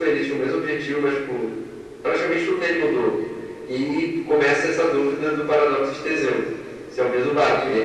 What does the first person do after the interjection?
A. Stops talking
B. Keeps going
A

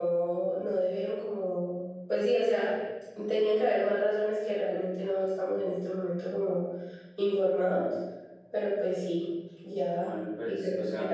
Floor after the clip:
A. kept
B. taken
B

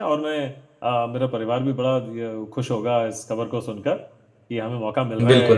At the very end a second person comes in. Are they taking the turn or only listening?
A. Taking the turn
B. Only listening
B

